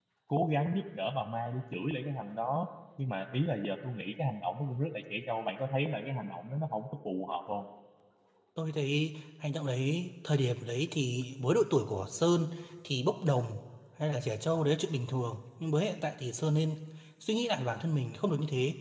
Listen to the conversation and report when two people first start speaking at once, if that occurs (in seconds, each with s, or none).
none